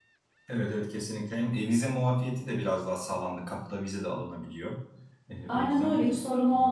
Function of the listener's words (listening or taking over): taking over